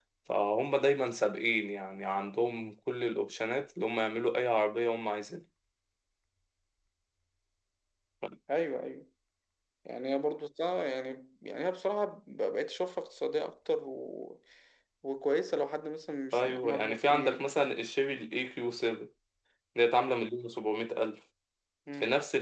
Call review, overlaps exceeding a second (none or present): present